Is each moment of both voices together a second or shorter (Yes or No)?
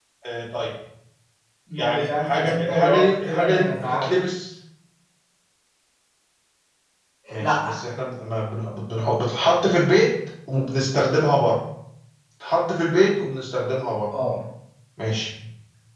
No